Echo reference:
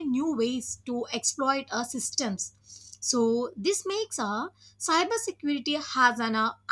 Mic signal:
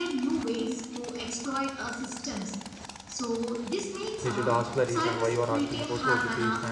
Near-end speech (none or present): present